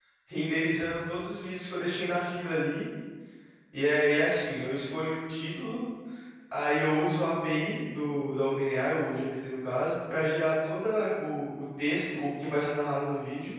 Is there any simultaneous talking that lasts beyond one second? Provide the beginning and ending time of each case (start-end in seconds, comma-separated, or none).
none